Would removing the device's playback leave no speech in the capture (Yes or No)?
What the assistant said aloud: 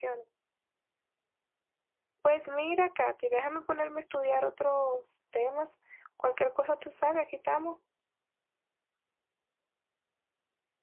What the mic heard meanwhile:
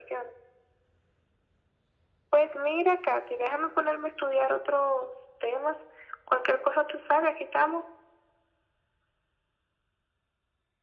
Yes